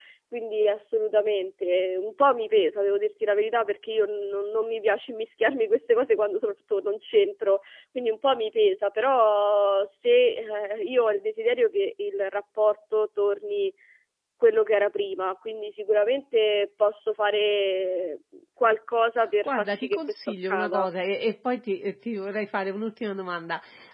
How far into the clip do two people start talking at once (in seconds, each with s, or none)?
19.4 s